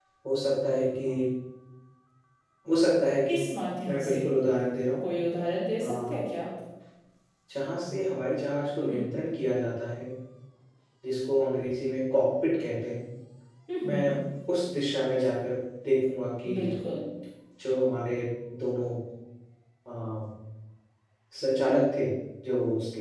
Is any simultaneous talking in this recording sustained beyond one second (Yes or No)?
No